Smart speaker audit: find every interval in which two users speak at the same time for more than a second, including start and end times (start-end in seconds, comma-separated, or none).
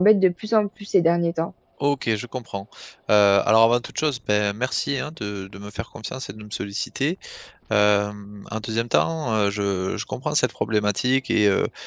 none